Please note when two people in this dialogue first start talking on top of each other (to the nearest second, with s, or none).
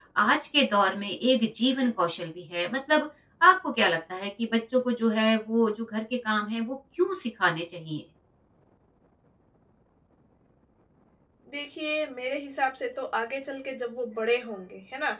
none